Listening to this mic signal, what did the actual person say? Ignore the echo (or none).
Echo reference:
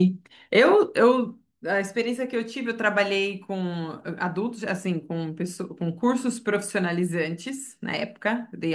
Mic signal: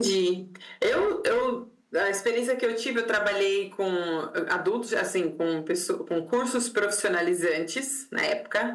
none